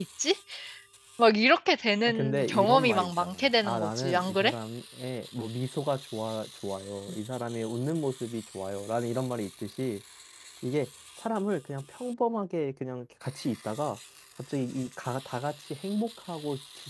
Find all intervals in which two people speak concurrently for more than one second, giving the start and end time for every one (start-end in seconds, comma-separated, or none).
2.1-4.5